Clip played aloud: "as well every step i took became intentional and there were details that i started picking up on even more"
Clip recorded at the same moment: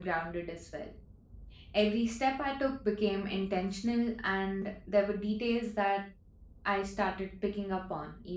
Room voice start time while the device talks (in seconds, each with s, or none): none